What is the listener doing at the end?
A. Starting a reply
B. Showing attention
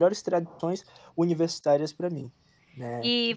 A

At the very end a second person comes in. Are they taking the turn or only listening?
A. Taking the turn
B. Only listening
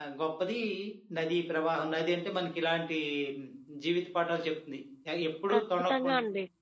A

